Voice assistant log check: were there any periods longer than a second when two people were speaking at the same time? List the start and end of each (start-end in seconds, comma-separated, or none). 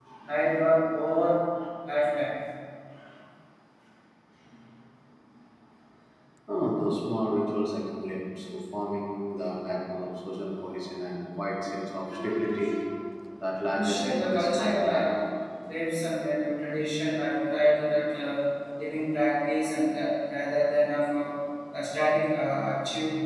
13.7-15.1